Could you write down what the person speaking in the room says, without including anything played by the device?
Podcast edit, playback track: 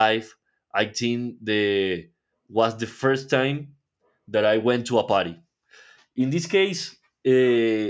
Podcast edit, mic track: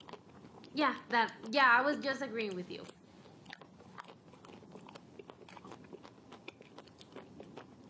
Yeah, that. Yeah, I was just agreeing with you.

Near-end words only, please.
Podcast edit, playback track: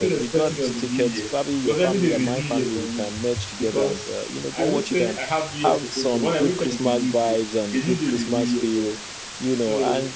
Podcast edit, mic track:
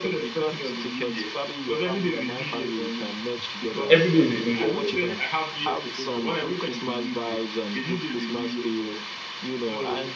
Every day is a new year for me.

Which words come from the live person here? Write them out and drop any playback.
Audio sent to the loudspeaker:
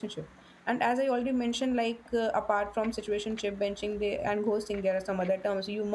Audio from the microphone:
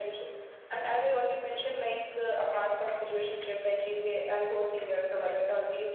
none

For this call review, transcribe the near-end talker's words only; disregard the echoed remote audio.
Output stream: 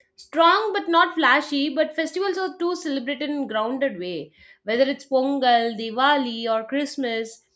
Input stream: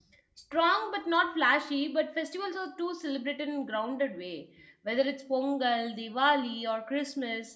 none

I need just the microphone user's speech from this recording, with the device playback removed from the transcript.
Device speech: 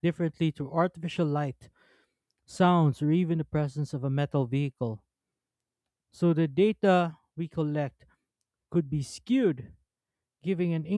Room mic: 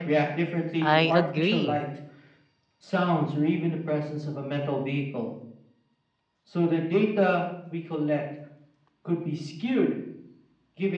I agree.

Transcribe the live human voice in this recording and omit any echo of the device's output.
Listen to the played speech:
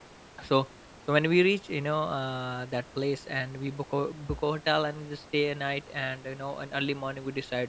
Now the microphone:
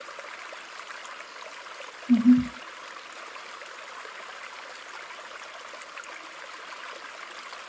Mm-hmm.

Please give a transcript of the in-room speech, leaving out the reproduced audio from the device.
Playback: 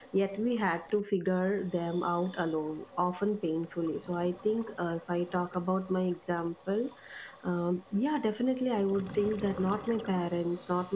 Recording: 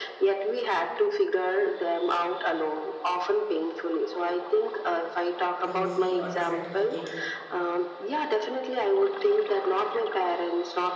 trophy, or the certificate,

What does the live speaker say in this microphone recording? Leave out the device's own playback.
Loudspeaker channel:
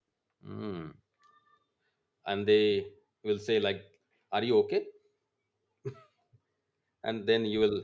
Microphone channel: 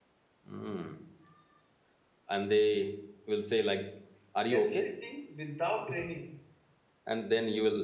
gaslighting without training.

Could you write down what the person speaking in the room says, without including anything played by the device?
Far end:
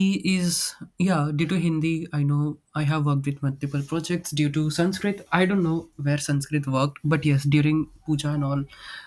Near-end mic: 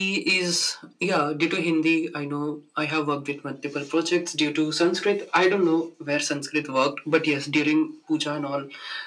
none

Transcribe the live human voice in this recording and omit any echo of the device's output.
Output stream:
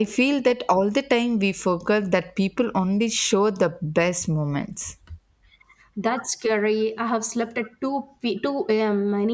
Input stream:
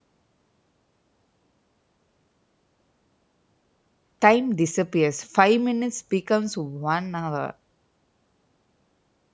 time disappears. Five minutes becomes one hour.

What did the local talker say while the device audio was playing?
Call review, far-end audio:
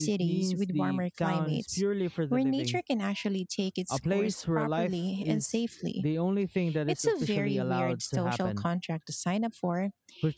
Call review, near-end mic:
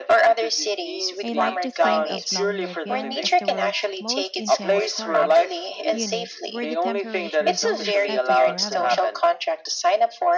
I like to think of Longyearbyen as the world's most intense storage unit where the temperature is always set to forever.

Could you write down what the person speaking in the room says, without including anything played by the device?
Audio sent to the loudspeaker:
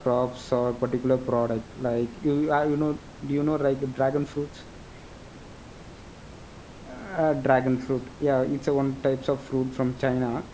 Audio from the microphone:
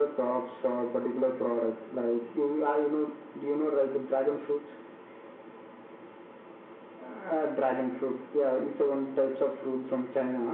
none

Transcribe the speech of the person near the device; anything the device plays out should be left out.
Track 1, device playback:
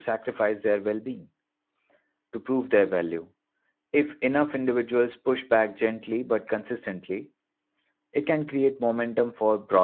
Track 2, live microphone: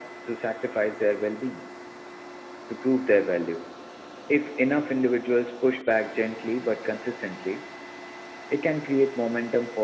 none

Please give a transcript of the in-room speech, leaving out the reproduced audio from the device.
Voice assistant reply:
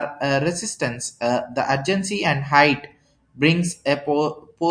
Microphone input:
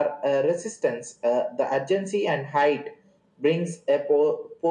none

